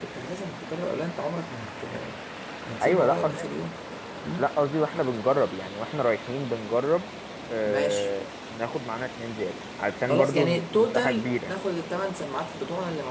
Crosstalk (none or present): present